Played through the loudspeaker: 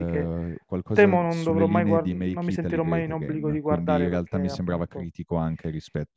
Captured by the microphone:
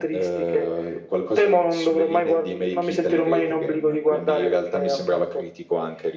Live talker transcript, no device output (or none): none